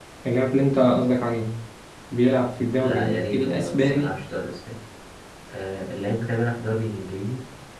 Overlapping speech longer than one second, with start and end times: 2.8-4.1

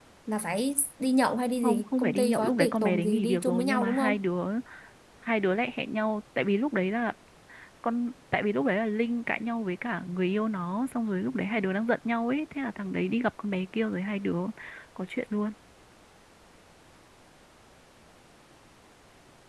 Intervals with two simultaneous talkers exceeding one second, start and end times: 1.6-4.2

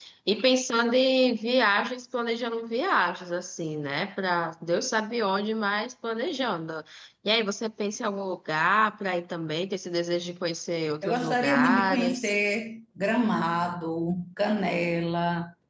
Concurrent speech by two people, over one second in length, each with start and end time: 11.0-12.3

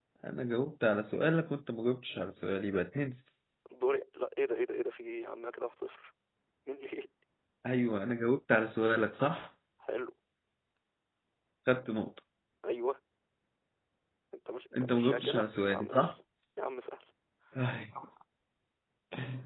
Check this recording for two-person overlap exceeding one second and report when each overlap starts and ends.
14.8-16.1

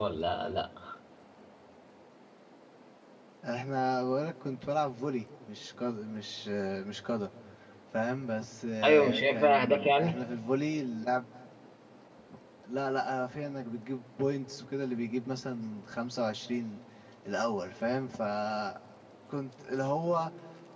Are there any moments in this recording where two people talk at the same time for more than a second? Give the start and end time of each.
8.8-10.2

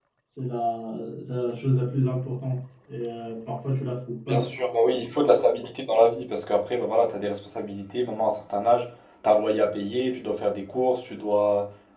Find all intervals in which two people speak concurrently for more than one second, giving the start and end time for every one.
none

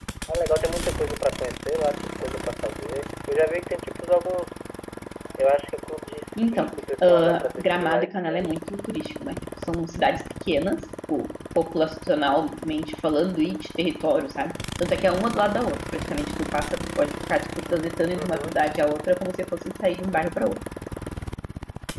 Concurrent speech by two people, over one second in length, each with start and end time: 6.4-8.5

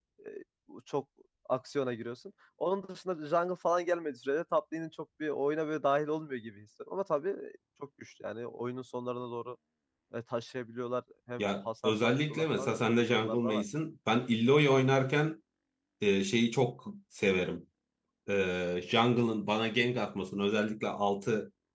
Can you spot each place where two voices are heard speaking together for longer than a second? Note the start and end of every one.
11.4-13.6

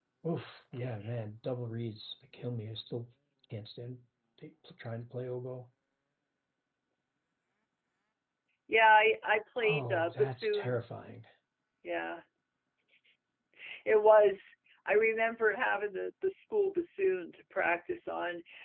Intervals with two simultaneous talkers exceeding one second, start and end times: 9.6-10.8

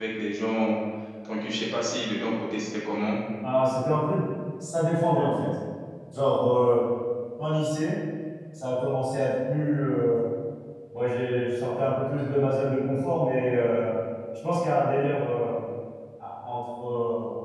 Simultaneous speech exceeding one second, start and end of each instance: none

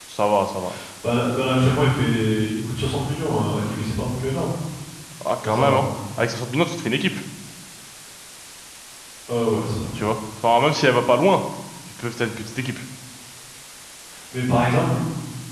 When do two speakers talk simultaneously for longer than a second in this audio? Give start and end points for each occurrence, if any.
none

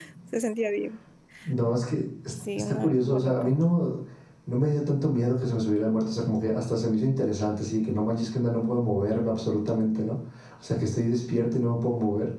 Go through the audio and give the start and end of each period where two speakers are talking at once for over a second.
2.3-3.5

